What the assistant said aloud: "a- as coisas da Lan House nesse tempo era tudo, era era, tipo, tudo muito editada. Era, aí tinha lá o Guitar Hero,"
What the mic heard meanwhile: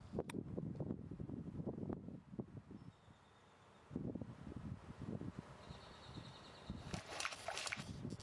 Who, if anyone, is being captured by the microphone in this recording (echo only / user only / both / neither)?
neither